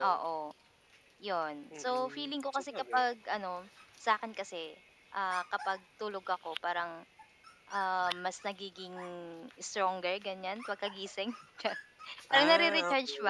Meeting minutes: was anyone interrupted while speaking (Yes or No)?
Yes